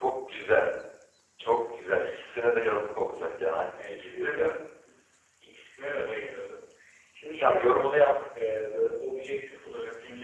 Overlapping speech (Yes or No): Yes